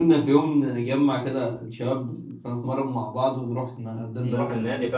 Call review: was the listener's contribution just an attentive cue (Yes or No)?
No